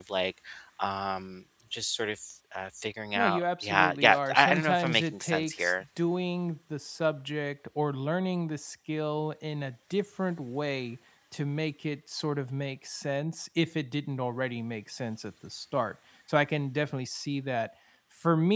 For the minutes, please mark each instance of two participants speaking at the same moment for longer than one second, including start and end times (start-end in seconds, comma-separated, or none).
3.2-5.7